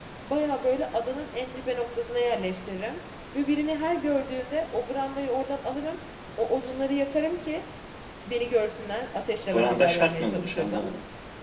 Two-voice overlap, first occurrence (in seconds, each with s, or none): 9.4 s